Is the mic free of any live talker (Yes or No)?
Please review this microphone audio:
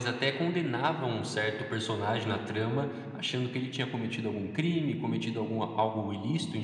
Yes